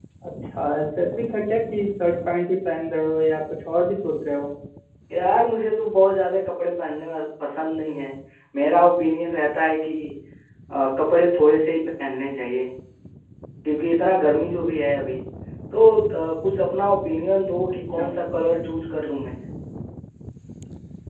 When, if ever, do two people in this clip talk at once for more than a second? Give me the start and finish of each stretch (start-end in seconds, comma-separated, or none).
none